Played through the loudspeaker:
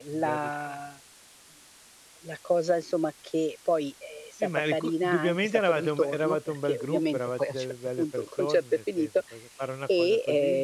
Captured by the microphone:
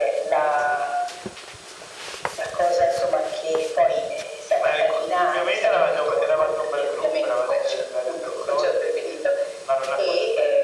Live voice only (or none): none